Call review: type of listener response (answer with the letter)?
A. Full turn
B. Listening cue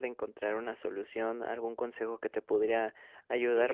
B